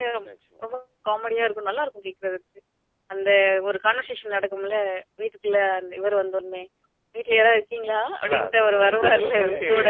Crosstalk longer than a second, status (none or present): present